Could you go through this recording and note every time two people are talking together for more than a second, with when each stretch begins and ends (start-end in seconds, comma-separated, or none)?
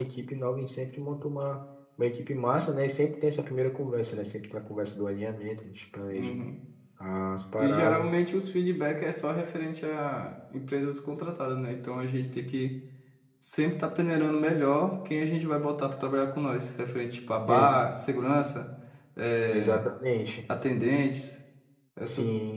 none